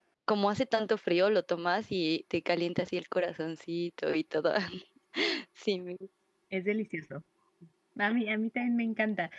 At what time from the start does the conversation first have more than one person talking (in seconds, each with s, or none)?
none